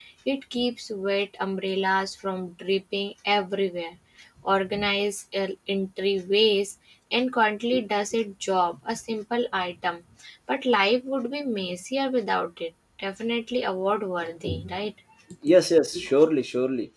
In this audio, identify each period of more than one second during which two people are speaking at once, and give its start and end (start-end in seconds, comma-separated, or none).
none